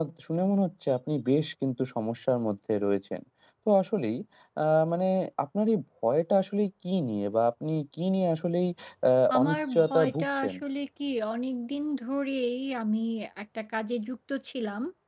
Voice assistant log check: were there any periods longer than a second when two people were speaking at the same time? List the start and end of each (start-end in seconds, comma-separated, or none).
9.3-10.6